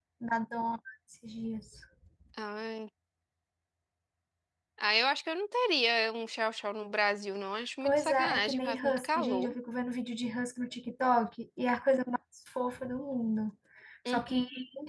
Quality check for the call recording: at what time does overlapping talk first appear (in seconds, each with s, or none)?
7.8 s